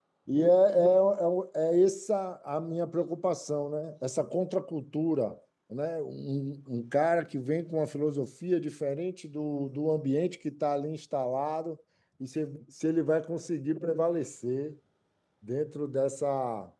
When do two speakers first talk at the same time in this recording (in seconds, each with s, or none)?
none